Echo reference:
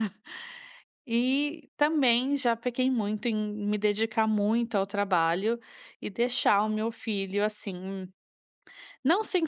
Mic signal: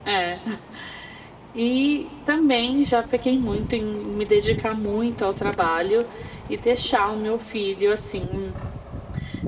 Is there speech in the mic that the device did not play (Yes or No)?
No